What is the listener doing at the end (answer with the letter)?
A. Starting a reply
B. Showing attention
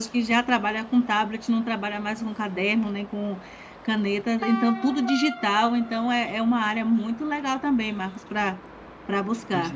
A